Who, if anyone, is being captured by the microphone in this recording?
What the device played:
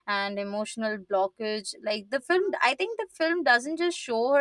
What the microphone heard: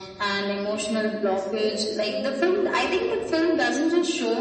both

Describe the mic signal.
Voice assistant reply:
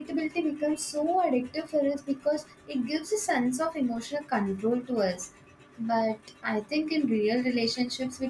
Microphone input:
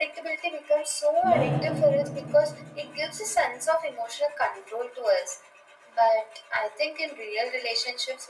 both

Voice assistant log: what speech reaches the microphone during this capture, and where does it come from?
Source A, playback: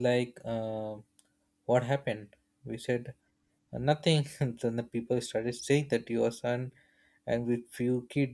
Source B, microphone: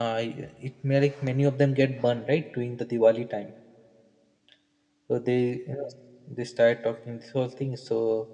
user only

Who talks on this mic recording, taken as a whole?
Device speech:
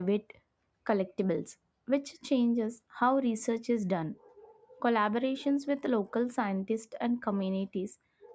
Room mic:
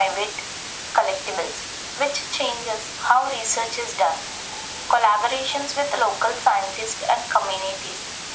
echo only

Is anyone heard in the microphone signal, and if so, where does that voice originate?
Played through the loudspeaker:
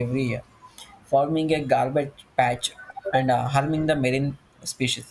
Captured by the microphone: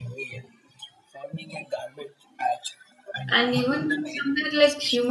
both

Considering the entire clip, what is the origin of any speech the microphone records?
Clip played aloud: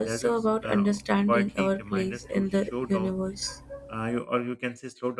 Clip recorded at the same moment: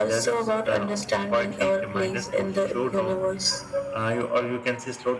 echo only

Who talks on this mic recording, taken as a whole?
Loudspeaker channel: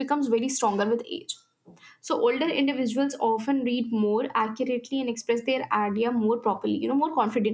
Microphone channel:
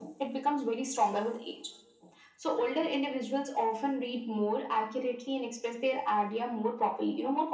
echo only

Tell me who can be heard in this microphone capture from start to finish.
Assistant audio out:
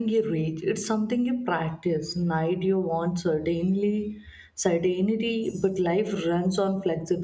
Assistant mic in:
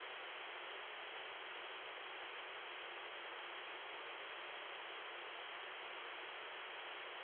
neither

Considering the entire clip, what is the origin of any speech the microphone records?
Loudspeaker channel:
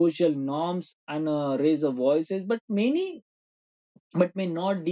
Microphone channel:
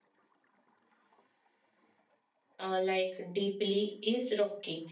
user only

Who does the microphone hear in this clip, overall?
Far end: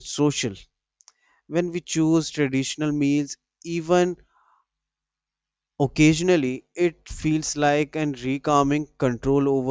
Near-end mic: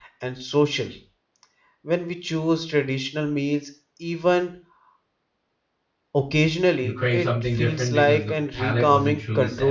both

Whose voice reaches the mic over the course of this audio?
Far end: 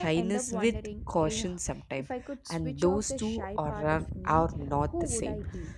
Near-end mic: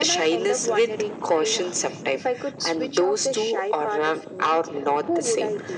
echo only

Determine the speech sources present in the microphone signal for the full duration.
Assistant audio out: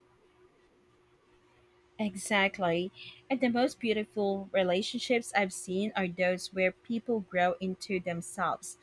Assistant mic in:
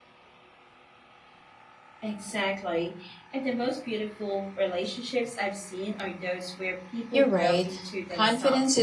both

